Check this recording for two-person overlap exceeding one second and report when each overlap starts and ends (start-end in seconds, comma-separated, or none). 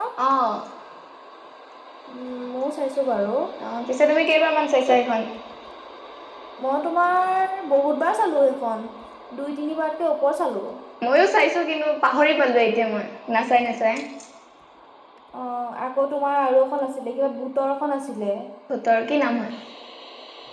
none